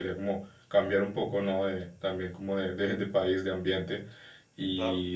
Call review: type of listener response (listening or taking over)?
listening